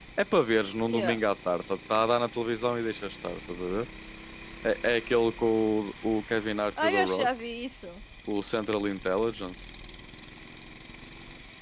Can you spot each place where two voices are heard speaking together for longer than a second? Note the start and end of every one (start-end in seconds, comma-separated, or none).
none